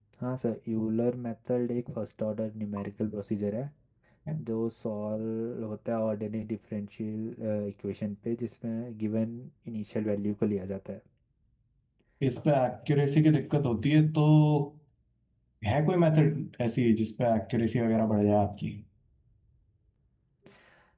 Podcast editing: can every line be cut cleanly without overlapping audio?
Yes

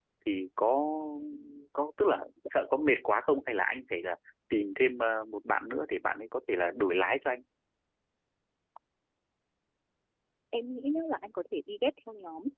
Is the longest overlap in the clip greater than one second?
No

